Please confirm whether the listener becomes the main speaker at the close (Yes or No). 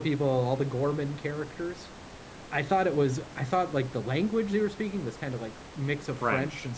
No